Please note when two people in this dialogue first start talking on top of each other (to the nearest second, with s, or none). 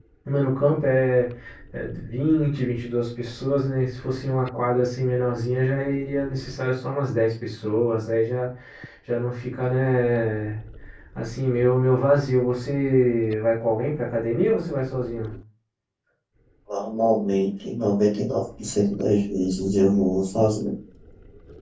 none